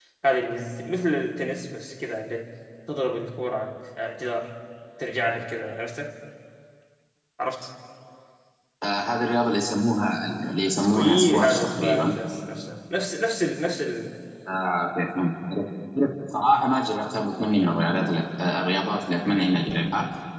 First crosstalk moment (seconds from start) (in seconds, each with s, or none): 10.8 s